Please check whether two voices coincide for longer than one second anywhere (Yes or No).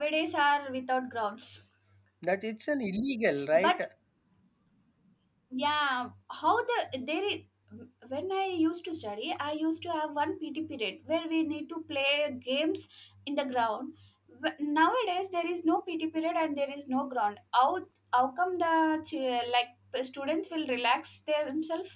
No